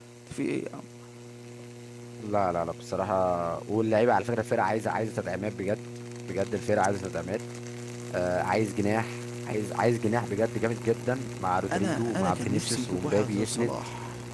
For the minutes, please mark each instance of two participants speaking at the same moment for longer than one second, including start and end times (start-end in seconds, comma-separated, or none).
11.7-13.7